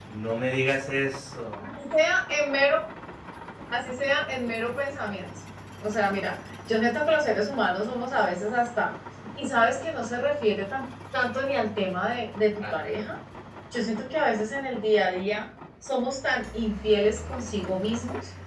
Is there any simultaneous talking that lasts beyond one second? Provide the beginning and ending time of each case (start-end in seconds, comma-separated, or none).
none